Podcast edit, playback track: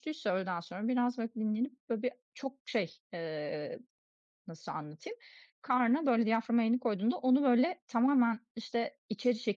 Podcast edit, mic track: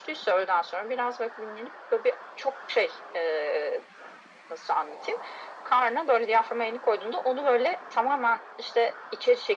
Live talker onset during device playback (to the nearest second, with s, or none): none